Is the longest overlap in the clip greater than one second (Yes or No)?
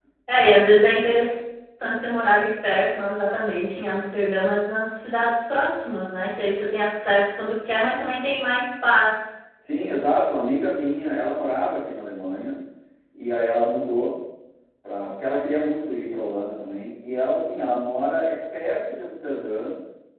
No